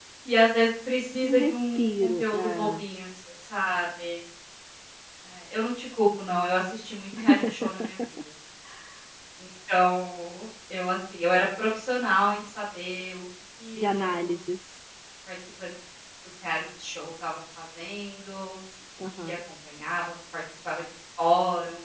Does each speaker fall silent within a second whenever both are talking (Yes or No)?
No